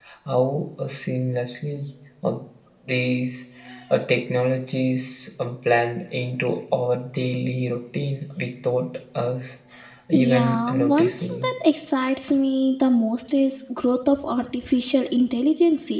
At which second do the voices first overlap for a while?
10.1 s

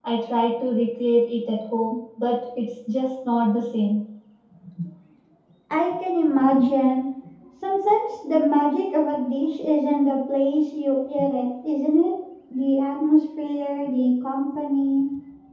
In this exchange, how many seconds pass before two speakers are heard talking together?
none

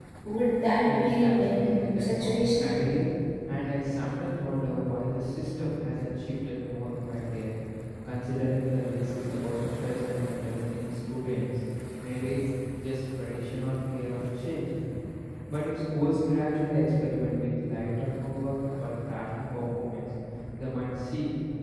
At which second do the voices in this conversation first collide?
0.8 s

